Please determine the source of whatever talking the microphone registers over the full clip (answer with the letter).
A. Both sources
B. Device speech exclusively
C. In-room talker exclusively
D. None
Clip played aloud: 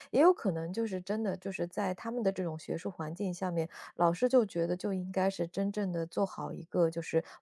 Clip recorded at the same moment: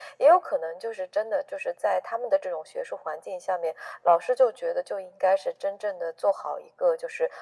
B